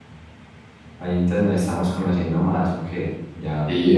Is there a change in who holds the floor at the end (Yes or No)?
Yes